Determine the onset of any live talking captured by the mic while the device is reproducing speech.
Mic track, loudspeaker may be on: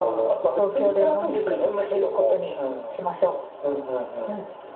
none

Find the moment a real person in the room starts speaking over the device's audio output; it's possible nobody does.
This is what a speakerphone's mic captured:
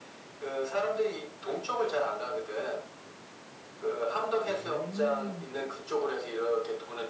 4.5 s

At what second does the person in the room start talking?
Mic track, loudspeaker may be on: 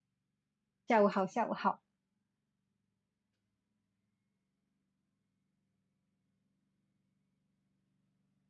0.9 s

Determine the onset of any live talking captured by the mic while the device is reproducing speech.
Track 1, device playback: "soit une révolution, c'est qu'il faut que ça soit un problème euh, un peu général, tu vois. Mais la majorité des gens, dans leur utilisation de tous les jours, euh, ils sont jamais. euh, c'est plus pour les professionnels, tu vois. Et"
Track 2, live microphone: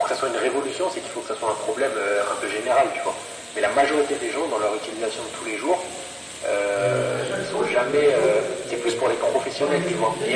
6.7 s

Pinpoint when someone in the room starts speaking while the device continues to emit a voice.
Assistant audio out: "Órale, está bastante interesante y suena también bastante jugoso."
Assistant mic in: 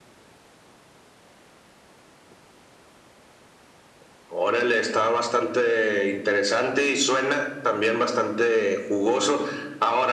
none

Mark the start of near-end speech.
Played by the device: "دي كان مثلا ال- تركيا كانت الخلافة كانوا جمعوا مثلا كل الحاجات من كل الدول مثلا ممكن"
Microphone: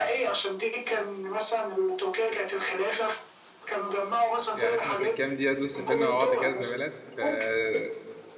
4.5 s

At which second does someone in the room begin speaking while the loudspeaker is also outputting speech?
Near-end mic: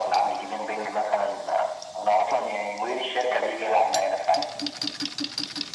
none

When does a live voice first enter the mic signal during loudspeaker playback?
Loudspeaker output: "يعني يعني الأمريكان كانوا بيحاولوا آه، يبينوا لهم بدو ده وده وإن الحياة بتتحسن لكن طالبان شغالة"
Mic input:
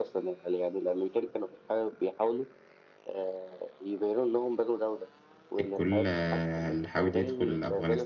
5.6 s

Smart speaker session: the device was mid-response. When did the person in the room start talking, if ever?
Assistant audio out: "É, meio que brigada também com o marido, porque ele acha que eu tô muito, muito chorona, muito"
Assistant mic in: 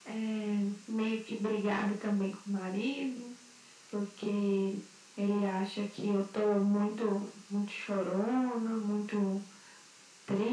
none

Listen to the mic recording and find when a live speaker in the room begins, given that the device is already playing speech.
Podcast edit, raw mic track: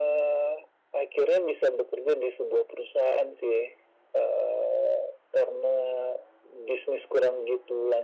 none

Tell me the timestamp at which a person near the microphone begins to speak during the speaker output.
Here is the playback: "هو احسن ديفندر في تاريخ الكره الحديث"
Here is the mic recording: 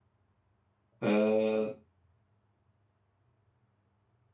1.0 s

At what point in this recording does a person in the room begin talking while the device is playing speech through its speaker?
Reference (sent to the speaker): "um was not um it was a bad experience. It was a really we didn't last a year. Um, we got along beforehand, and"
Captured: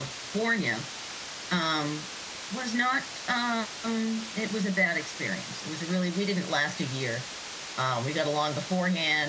none

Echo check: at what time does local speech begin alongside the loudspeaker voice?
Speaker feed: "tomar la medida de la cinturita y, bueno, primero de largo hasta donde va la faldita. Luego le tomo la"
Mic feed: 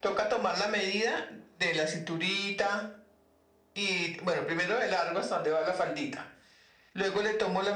none

